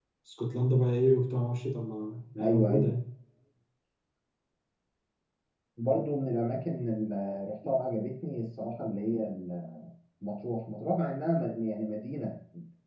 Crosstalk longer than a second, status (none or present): none